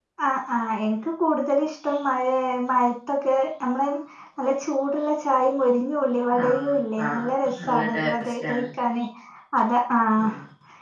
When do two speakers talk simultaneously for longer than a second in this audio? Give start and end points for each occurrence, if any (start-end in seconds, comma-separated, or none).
7.1-8.6